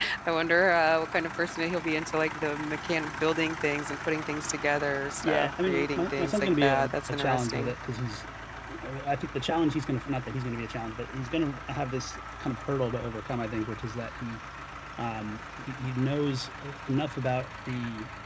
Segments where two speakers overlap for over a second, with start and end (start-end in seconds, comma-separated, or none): 5.2-7.7